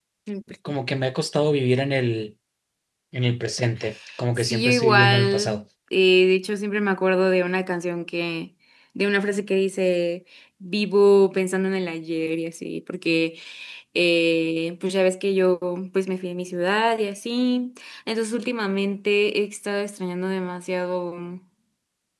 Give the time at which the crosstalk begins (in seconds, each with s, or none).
4.4 s